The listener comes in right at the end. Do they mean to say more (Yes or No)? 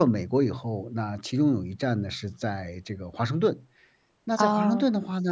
No